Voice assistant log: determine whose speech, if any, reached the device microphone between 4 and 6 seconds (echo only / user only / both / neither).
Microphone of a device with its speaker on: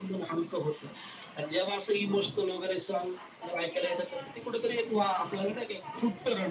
both